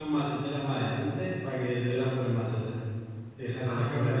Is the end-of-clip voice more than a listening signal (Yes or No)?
Yes